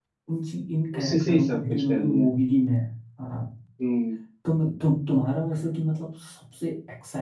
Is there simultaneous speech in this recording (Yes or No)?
Yes